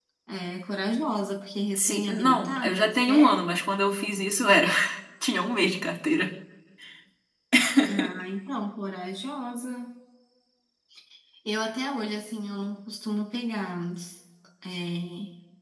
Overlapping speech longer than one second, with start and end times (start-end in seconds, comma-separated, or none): 1.7-3.5